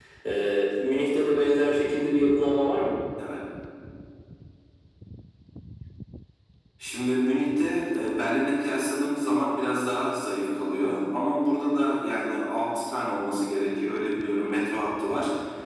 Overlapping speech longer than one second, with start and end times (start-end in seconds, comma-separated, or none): none